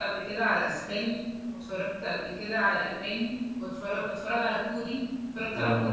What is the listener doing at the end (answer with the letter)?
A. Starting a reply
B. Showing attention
A